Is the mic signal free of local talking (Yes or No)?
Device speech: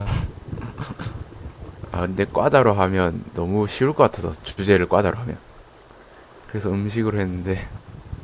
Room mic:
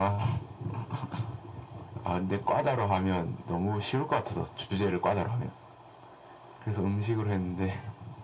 Yes